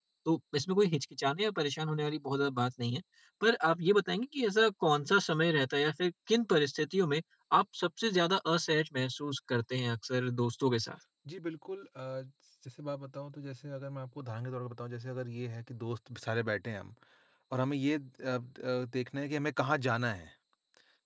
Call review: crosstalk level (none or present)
none